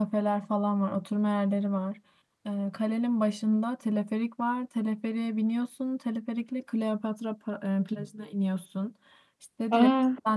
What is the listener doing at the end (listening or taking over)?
listening